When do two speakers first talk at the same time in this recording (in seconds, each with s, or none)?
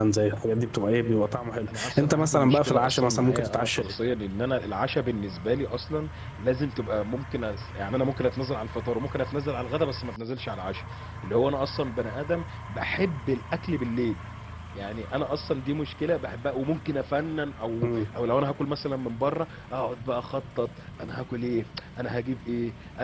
1.7 s